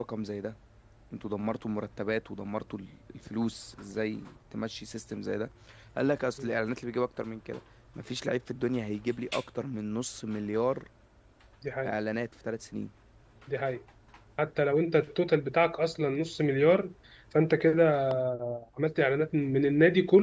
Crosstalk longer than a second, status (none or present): none